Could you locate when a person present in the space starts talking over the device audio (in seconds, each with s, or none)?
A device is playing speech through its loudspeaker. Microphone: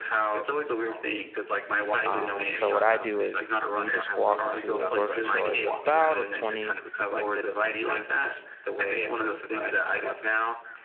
2.1 s